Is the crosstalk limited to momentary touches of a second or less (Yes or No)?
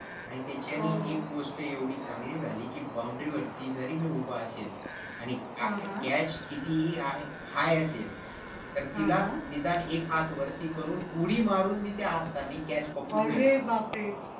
Yes